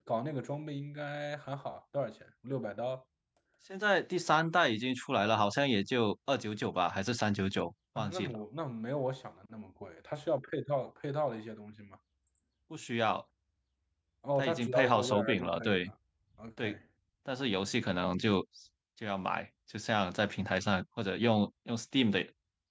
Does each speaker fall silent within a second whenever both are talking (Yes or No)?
No